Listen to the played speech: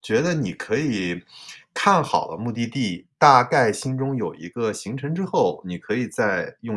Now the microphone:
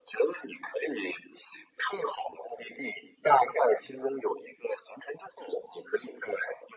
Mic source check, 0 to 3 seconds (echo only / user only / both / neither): echo only